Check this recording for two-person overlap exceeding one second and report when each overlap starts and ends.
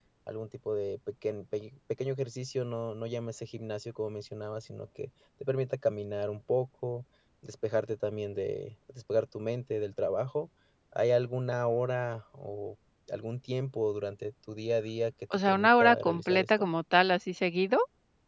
15.5-16.7

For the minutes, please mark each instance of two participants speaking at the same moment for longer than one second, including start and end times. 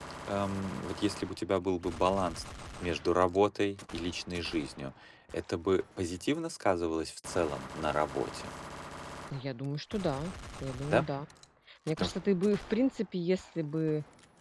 none

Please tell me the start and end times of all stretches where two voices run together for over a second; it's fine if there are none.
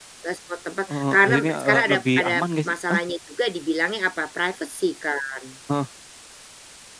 0.9-2.3

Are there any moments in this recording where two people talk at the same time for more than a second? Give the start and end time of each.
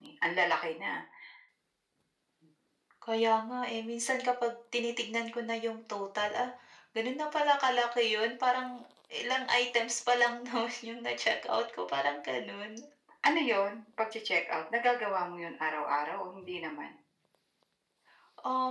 none

